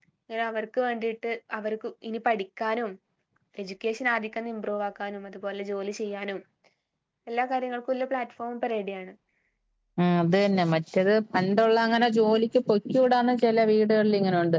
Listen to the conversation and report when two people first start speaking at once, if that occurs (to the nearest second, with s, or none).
none